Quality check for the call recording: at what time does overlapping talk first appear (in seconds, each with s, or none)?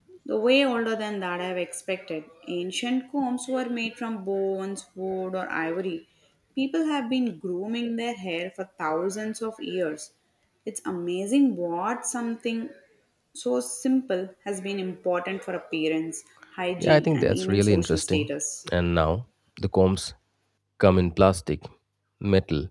16.8 s